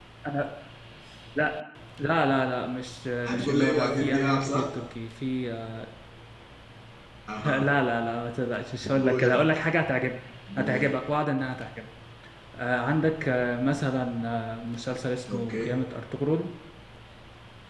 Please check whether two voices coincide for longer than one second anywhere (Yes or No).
Yes